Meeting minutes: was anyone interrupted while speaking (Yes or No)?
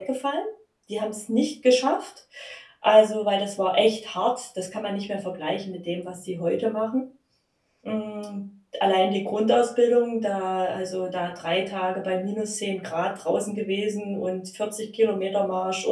No